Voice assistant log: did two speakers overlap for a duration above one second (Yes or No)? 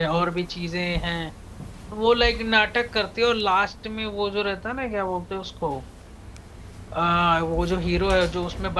No